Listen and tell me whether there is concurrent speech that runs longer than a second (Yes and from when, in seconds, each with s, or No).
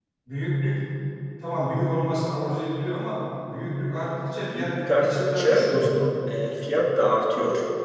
Yes, from 4.5 s